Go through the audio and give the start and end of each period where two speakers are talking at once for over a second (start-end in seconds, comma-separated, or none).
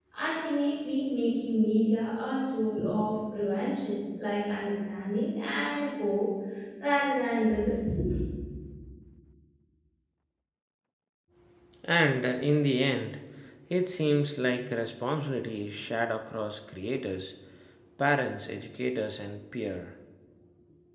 none